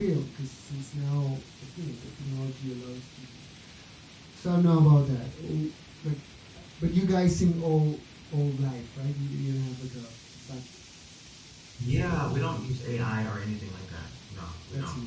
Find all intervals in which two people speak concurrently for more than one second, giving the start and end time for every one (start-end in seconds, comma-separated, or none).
none